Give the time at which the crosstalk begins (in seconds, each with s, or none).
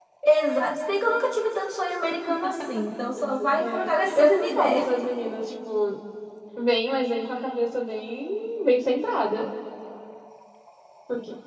3.6 s